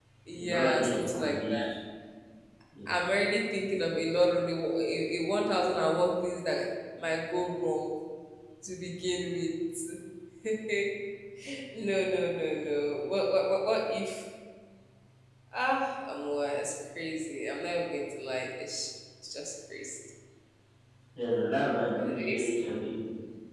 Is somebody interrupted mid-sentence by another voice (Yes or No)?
Yes